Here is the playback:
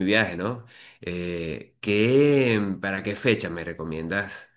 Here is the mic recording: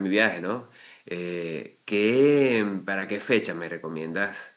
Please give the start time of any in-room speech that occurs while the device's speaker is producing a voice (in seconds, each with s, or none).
none